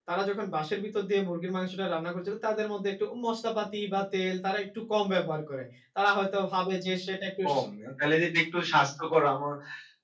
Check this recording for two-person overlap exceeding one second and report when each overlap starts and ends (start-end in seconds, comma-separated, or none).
none